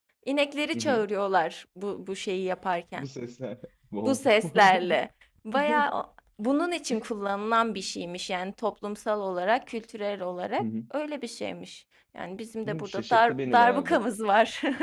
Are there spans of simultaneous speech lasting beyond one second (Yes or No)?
Yes